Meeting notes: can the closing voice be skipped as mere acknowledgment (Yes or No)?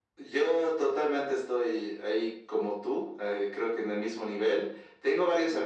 Yes